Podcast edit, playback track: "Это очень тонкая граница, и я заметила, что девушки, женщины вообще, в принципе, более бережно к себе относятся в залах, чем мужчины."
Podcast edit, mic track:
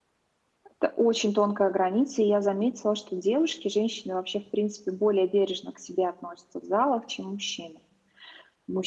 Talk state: echo only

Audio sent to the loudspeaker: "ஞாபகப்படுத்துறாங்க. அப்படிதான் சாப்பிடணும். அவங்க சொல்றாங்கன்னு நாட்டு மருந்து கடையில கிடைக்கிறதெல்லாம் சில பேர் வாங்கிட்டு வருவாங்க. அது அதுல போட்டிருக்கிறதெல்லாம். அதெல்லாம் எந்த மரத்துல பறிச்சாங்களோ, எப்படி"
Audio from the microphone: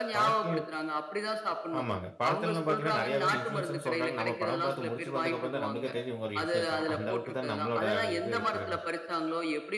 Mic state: both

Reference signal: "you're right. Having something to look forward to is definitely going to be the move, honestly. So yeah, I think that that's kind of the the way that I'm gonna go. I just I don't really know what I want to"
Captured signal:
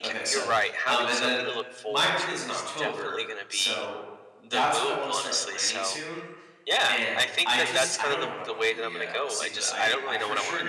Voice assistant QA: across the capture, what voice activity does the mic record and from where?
both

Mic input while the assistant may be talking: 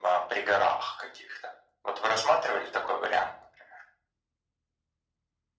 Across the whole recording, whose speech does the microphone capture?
echo only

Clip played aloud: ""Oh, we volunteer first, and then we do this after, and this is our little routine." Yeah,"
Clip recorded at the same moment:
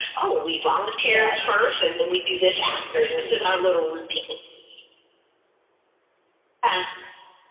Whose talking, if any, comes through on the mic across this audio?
both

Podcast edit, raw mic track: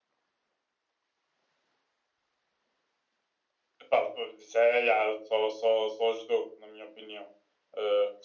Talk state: echo only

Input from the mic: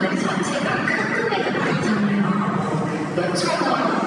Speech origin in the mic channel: both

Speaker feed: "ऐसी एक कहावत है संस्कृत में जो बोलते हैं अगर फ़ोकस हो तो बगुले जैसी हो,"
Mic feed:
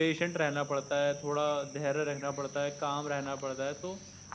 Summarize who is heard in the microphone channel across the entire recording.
user only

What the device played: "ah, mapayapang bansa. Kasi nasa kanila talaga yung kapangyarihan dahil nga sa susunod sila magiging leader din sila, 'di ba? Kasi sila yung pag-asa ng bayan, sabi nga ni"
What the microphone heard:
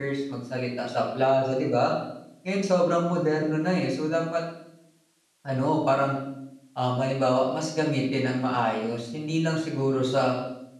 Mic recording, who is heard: user only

